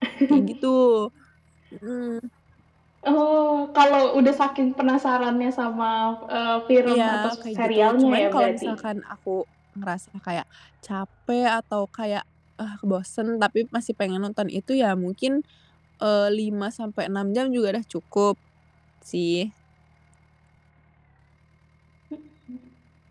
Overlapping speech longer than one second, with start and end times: 6.9-8.8

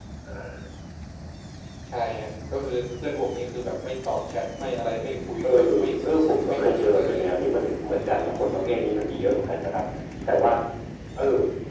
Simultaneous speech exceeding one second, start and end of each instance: 5.4-7.5

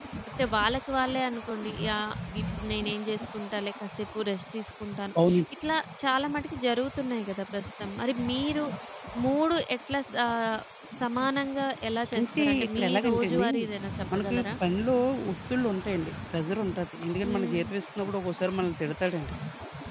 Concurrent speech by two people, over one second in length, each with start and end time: 12.2-13.5

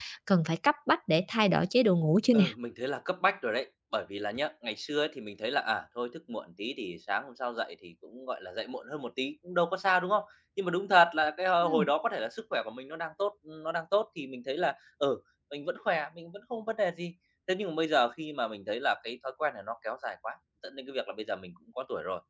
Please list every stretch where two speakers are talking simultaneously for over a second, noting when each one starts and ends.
none

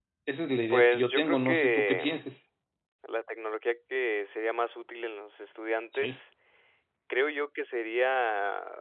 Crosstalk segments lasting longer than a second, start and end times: 0.7-2.2

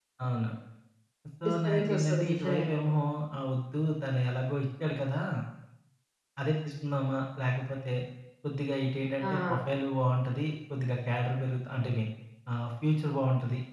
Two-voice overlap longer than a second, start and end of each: 1.4-2.9

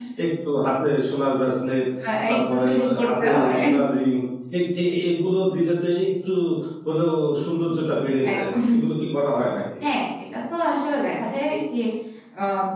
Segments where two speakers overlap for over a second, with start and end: 2.3-3.5

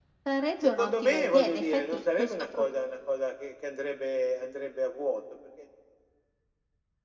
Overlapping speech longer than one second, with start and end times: 0.6-2.7

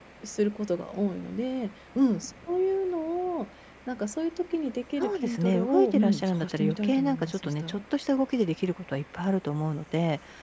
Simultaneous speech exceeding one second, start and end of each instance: 5.0-7.8

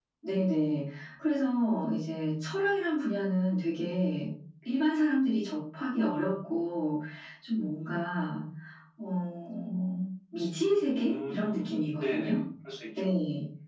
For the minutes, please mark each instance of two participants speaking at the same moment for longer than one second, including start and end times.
10.9-12.4

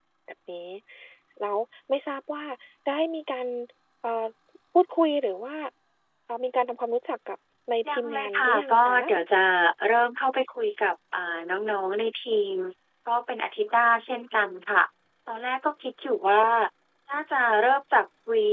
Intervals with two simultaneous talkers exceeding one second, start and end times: 7.9-9.1

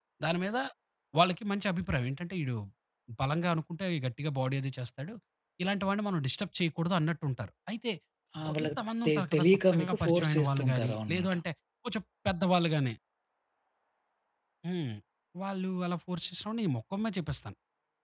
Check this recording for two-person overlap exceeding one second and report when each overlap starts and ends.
8.5-11.3

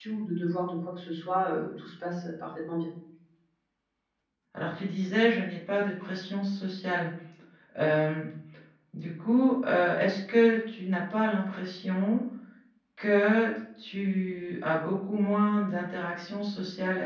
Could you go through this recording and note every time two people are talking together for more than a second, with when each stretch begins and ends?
none

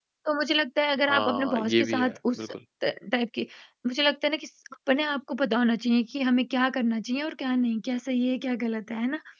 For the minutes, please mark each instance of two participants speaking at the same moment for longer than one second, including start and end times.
1.0-2.5

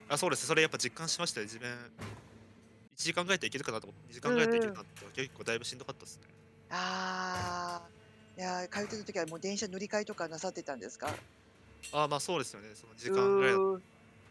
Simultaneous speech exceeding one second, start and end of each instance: none

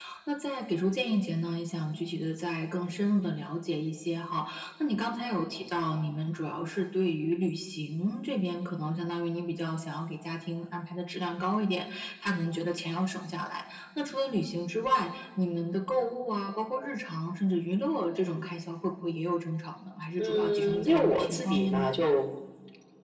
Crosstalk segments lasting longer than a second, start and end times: 20.2-21.9

